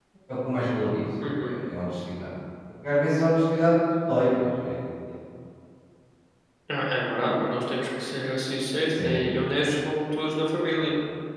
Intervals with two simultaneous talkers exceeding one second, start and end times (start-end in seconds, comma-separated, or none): none